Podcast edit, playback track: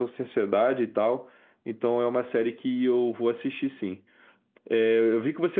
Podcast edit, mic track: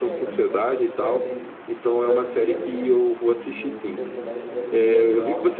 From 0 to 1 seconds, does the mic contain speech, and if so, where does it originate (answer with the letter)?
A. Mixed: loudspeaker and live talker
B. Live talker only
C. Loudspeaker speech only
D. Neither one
A